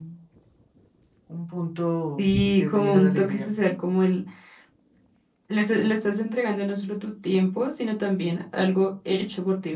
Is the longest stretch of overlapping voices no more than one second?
No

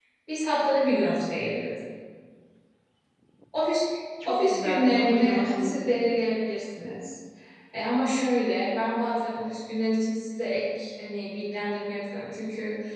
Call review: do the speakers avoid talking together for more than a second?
No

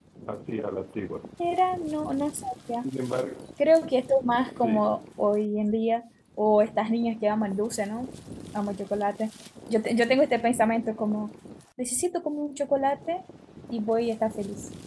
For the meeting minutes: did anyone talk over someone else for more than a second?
No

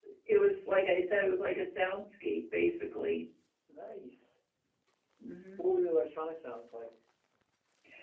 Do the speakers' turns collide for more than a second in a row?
No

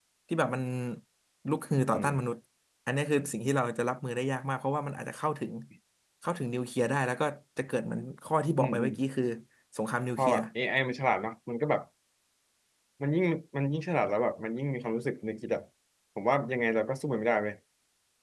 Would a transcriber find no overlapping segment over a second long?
Yes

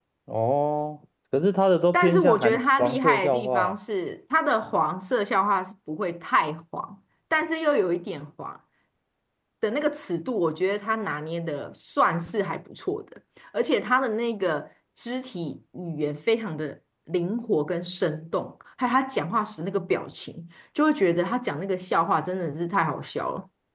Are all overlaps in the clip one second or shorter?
No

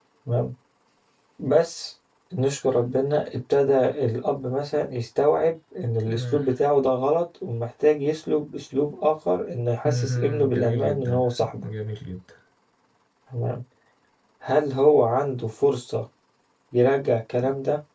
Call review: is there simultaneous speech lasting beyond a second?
Yes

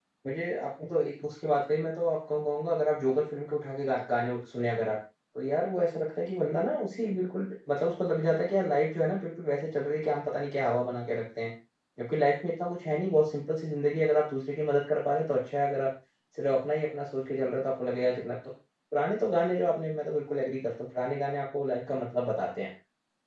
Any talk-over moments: No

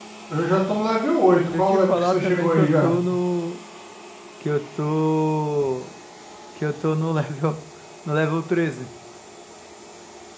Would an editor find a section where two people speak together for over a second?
Yes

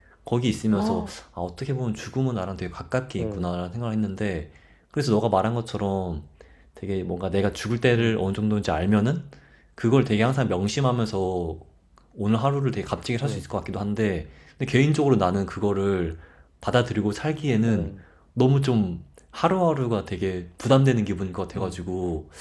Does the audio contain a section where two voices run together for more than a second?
No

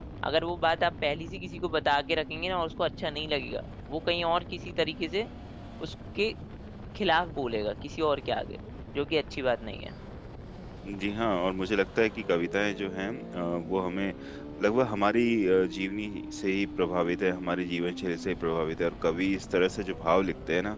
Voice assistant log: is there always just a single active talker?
Yes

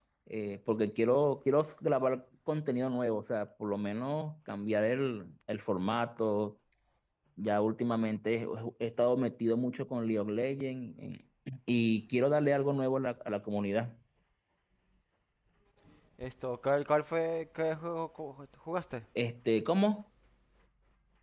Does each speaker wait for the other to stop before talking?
Yes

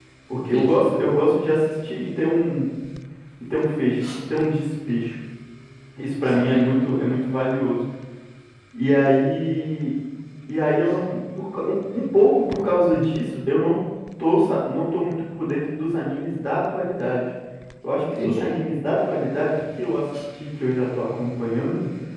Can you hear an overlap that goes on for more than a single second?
No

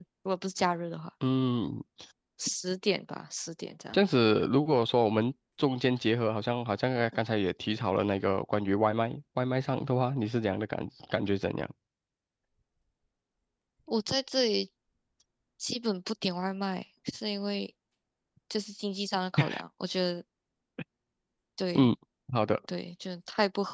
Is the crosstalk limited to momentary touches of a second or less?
Yes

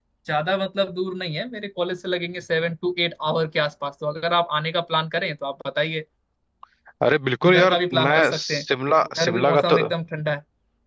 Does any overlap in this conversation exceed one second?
Yes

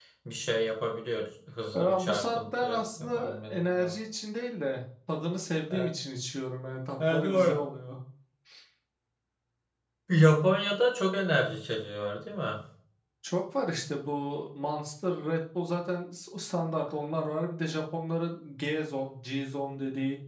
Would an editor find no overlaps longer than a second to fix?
No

